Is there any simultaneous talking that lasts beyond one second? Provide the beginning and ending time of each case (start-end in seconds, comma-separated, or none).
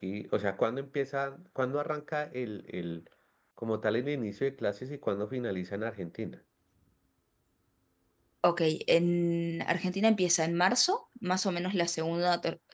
none